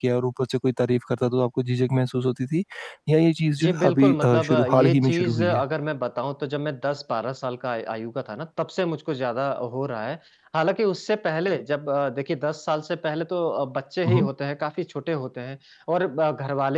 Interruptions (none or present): present